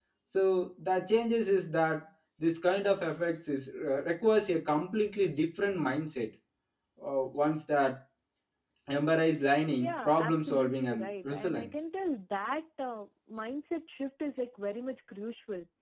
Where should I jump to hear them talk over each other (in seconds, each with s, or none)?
9.8 s